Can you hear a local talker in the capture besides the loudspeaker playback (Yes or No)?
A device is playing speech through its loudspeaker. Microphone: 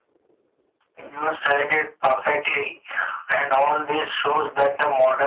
No